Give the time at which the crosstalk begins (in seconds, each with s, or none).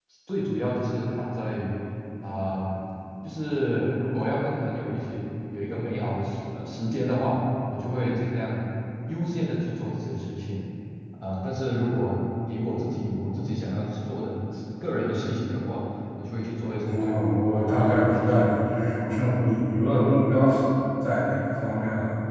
16.8 s